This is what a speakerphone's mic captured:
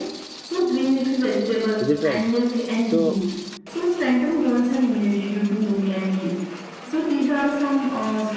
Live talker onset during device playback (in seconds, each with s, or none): 1.8 s